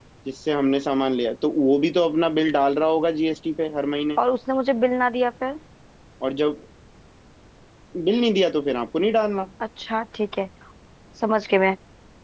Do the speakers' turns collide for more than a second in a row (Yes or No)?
No